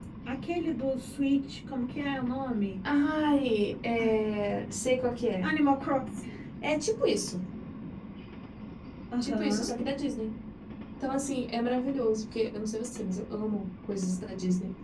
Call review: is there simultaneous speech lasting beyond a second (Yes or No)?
No